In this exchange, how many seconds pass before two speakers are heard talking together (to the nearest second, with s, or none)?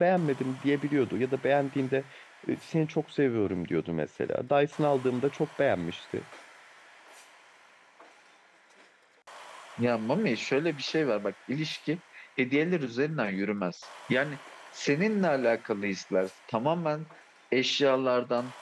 none